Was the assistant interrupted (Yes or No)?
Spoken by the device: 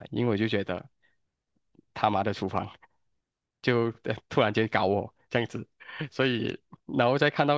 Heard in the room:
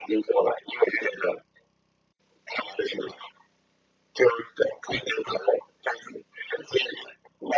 No